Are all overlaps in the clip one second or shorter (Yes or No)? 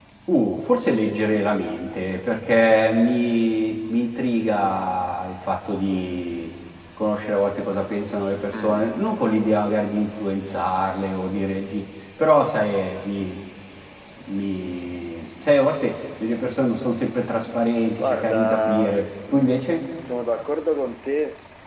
No